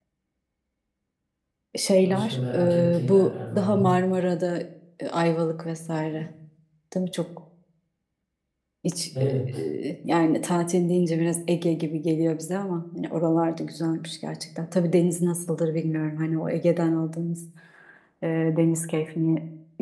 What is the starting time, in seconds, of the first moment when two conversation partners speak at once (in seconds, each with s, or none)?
1.9 s